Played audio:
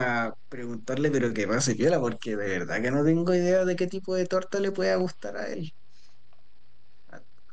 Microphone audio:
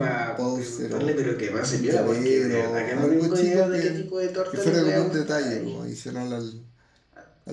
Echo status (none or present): present